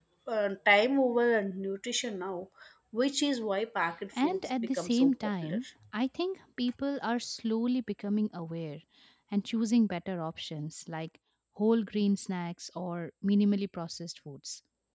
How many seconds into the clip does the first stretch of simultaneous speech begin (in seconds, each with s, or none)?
4.2 s